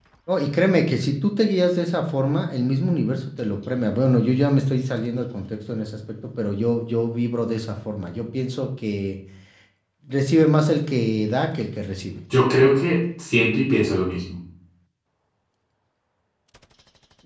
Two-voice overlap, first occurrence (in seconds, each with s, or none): none